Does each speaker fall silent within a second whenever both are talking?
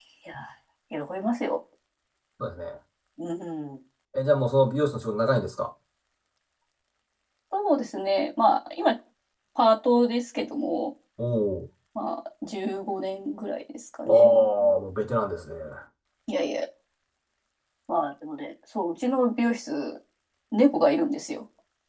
Yes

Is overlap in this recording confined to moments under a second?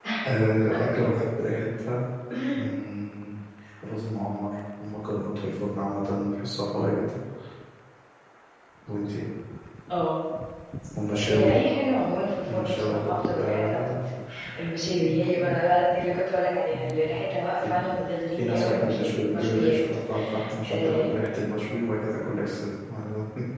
No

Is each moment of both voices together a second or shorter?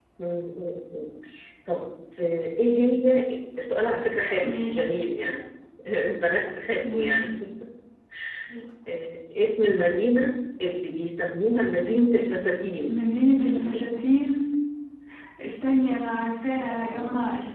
Yes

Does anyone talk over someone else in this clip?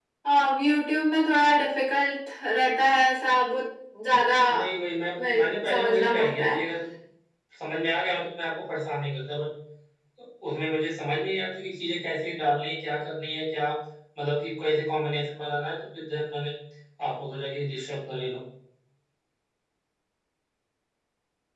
Yes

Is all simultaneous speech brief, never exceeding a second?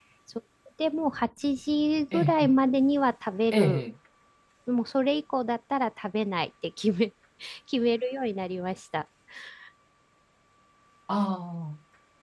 Yes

